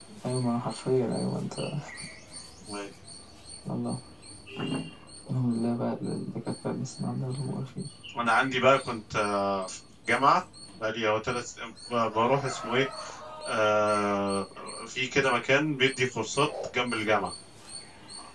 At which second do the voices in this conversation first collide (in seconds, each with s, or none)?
none